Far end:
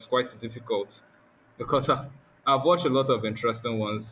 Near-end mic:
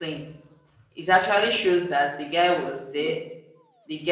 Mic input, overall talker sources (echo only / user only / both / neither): user only